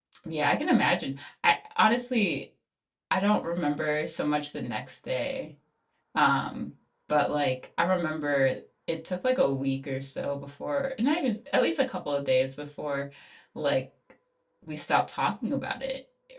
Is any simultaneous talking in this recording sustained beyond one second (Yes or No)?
No